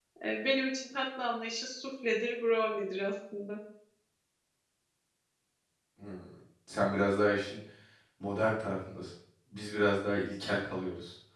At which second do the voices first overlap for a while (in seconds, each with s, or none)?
none